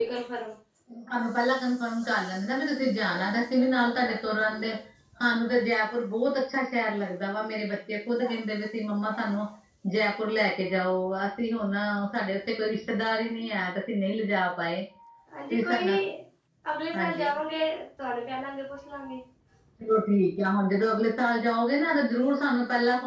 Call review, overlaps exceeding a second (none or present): none